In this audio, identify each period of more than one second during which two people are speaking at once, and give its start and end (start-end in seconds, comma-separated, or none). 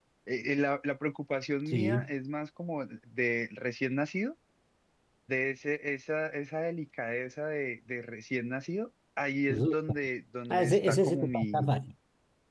10.5-11.7